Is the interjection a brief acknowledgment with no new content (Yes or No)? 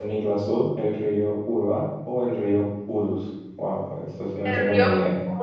No